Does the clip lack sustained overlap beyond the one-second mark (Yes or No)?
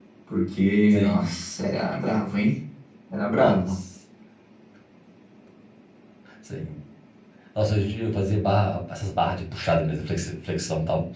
Yes